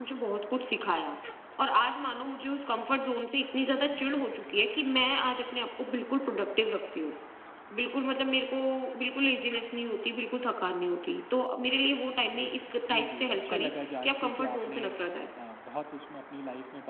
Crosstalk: present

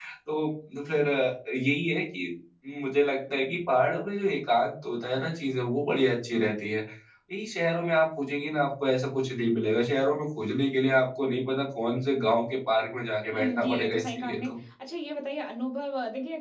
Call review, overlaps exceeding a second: present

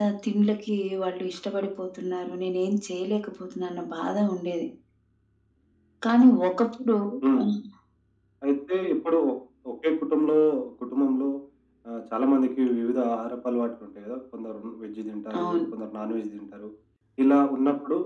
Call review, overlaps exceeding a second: none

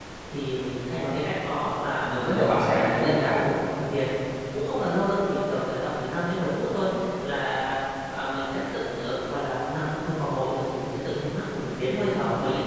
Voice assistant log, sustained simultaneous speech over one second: present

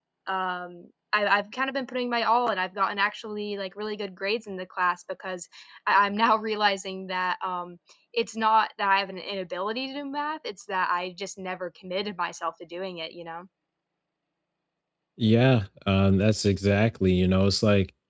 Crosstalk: none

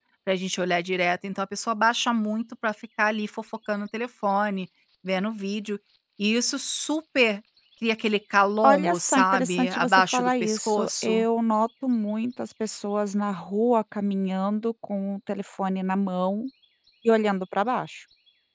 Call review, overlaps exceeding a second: present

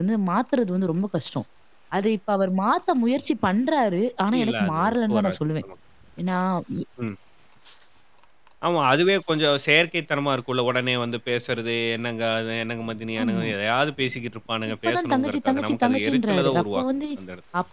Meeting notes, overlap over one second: present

